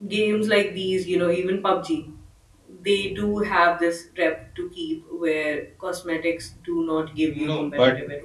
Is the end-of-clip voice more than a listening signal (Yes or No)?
Yes